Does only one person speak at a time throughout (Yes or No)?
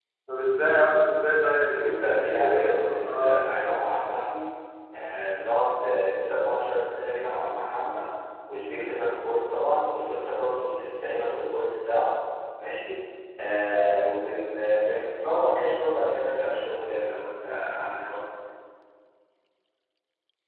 No